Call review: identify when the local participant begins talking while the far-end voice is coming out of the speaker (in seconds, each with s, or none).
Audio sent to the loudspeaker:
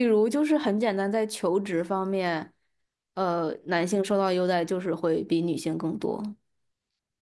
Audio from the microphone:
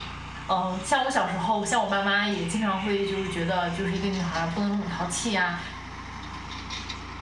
0.5 s